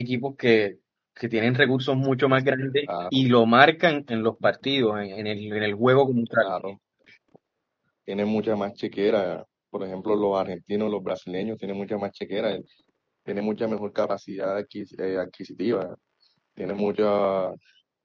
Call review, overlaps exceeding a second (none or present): none